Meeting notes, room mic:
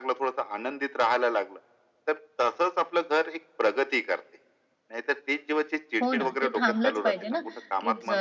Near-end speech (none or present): present